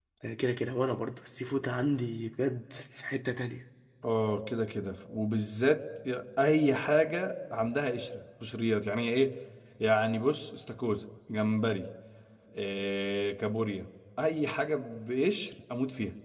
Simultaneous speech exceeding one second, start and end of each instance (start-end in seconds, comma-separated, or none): none